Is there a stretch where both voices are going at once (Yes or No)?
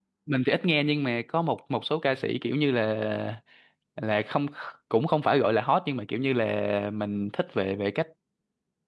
No